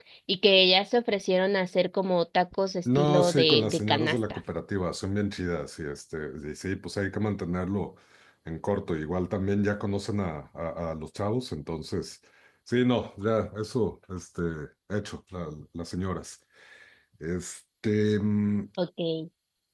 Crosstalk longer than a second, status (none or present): present